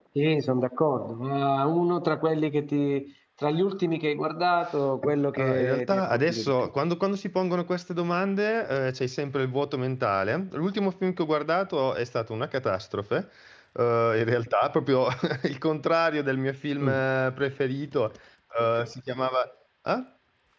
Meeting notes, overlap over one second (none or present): present